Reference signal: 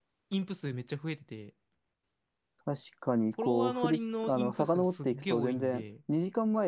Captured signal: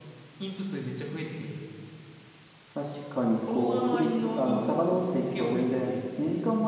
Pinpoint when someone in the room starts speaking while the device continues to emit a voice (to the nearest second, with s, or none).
none